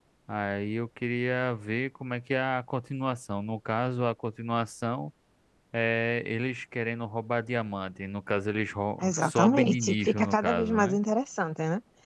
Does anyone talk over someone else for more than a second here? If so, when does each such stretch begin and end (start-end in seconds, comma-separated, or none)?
9.0-11.0